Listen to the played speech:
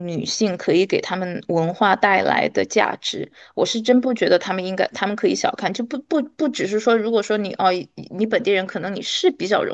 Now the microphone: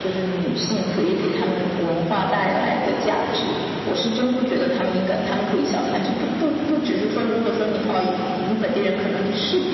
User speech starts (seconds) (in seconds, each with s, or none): none